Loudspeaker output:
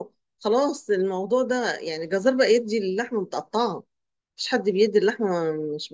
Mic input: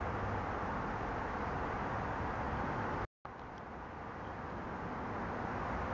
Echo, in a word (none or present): none